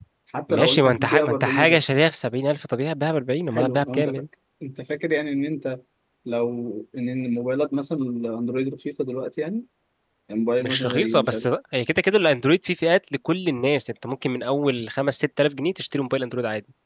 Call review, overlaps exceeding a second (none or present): present